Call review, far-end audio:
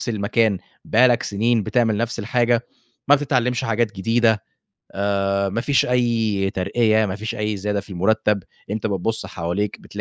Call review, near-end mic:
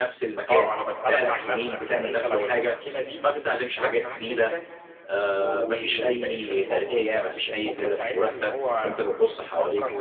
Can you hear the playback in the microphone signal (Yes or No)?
Yes